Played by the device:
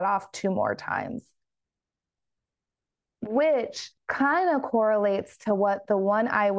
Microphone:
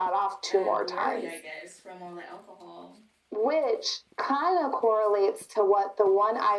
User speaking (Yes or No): Yes